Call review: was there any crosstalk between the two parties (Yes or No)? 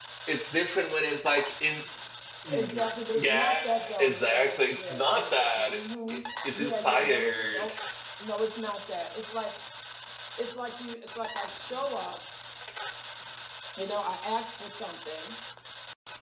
Yes